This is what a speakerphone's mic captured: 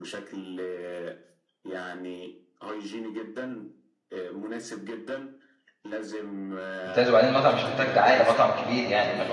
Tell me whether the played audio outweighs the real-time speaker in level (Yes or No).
No